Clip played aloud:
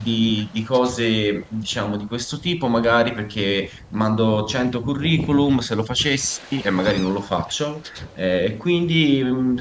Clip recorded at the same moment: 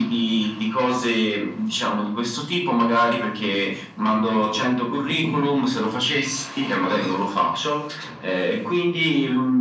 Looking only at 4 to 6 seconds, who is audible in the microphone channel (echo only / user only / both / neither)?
echo only